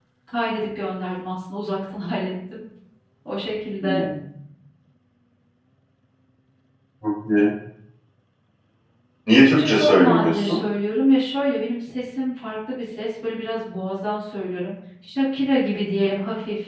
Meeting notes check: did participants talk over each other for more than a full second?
Yes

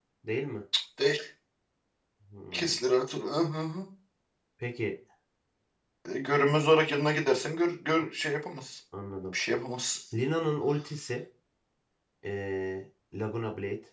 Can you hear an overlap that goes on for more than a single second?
No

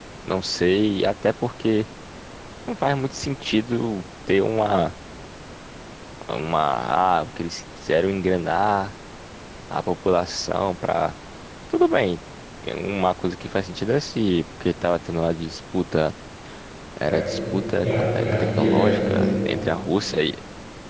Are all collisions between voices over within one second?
No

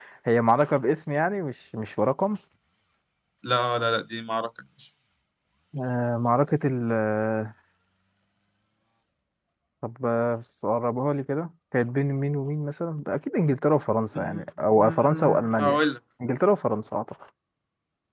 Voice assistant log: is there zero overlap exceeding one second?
No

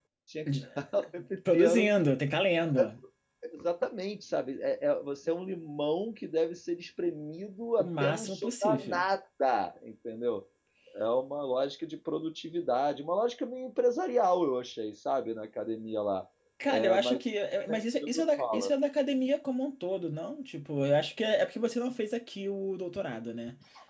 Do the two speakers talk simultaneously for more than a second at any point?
Yes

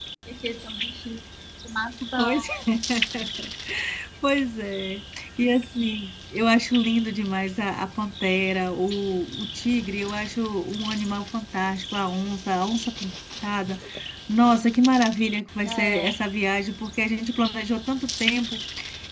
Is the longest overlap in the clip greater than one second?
No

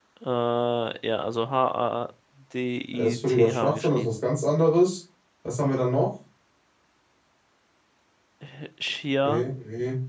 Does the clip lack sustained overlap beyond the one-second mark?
No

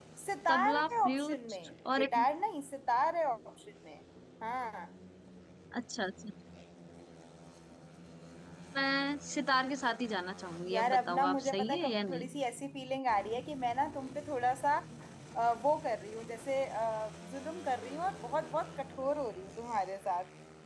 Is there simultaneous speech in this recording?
Yes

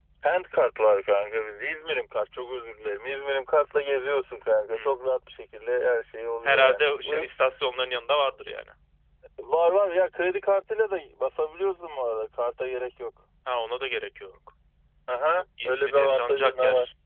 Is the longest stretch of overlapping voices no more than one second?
No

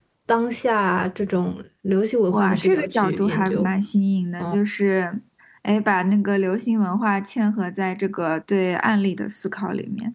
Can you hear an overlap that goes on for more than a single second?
Yes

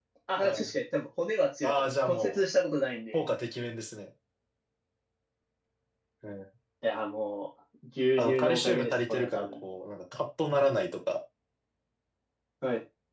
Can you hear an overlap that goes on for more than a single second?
Yes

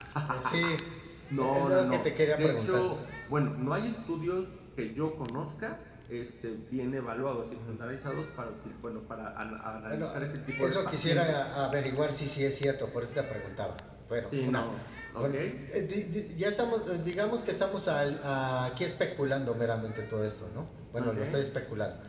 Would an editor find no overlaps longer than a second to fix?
No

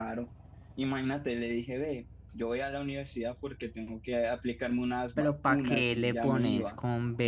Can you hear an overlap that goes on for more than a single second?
Yes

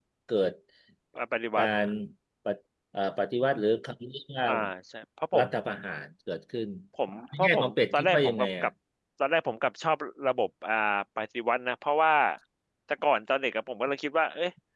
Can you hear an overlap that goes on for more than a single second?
Yes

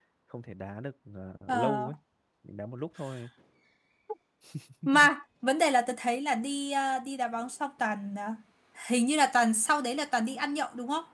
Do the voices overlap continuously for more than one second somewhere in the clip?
No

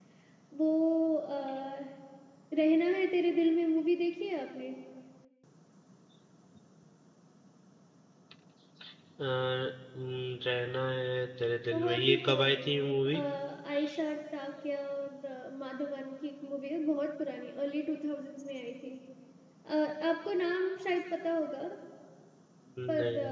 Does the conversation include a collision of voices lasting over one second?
Yes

